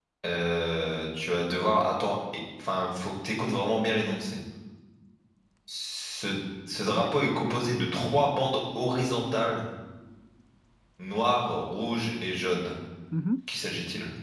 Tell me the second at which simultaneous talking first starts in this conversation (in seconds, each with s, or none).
6.9 s